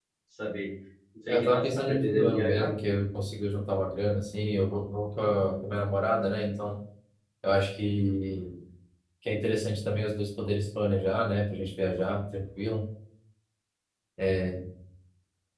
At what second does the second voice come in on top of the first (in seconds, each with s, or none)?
1.3 s